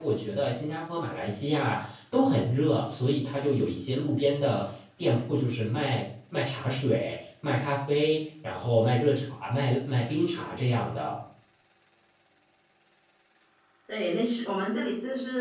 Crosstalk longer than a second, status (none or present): none